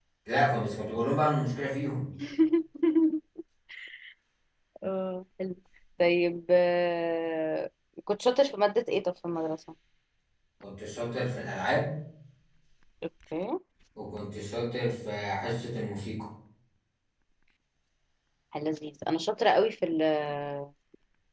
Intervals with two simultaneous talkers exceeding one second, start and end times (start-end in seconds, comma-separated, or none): none